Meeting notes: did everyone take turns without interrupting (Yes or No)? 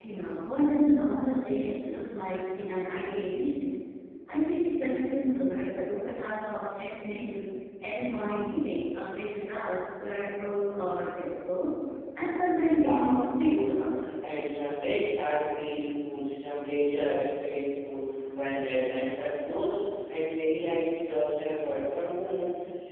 No